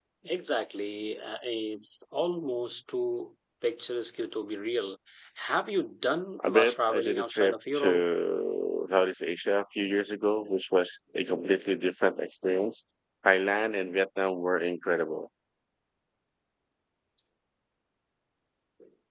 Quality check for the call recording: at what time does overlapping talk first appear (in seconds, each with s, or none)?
6.4 s